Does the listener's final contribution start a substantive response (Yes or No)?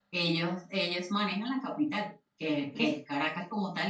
No